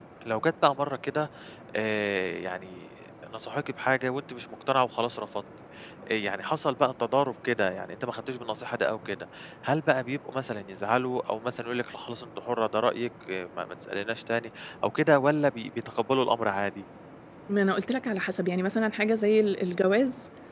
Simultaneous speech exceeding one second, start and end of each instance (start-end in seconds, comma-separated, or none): none